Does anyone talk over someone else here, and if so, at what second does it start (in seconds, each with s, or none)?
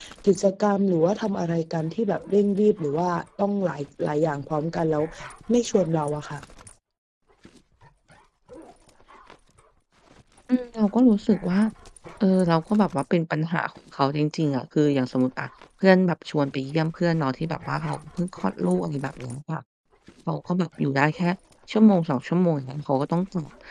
none